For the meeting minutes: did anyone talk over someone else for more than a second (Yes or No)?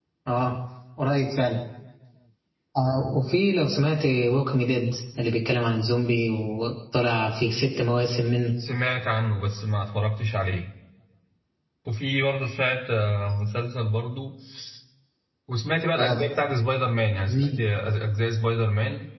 No